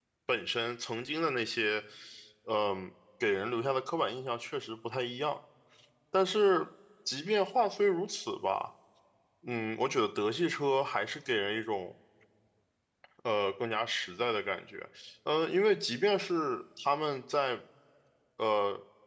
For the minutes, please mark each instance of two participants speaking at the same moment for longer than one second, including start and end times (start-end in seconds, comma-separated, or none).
none